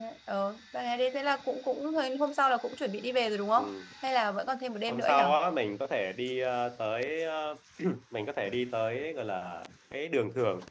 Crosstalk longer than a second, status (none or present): none